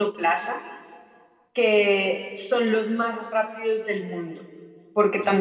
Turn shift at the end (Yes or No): No